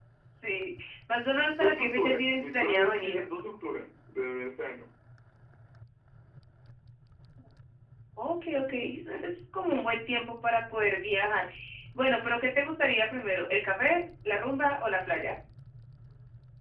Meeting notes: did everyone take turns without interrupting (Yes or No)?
No